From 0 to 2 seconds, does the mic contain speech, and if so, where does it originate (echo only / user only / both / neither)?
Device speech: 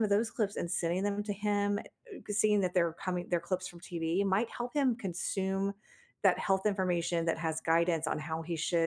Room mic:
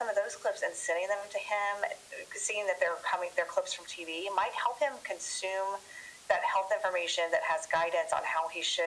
echo only